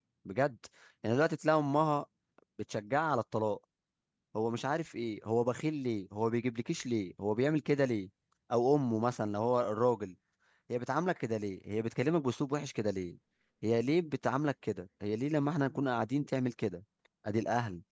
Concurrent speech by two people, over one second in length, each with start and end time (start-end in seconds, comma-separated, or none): none